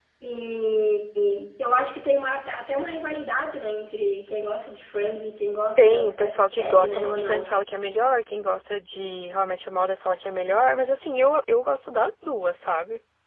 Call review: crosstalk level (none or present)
present